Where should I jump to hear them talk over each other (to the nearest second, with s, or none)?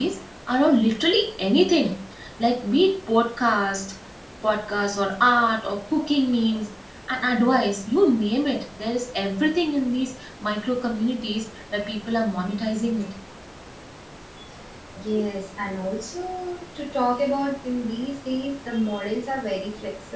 none